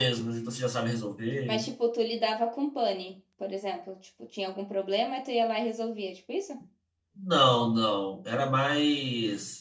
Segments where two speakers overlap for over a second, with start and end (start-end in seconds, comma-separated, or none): none